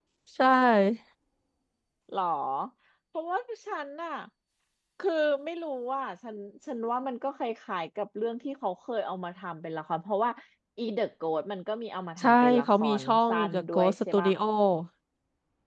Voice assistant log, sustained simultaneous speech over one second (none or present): present